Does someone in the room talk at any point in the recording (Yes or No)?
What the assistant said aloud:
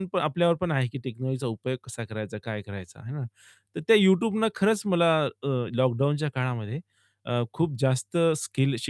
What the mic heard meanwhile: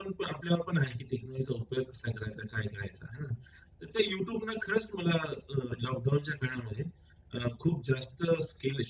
No